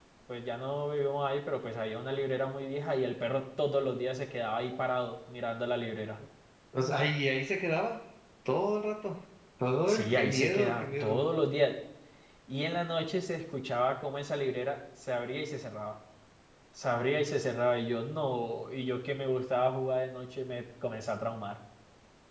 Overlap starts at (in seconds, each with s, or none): 9.9 s